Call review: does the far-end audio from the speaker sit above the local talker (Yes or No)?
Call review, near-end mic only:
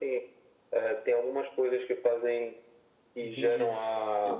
Yes